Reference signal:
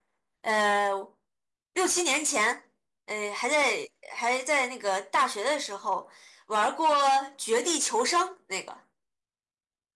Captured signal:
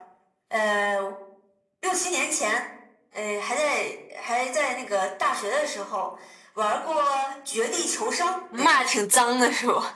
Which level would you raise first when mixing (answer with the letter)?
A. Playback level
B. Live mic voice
A